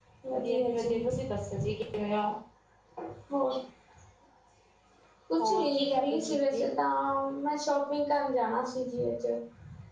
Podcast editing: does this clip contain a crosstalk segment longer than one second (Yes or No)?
Yes